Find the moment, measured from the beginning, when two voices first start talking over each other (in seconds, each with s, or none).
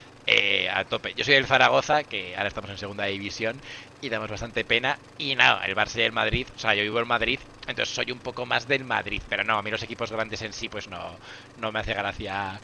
none